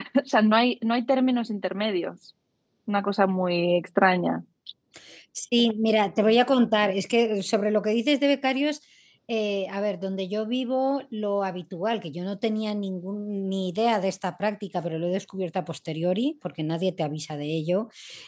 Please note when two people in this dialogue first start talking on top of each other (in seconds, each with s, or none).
none